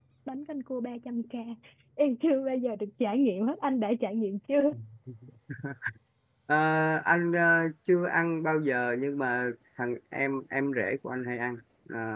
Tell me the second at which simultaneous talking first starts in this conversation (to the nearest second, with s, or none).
none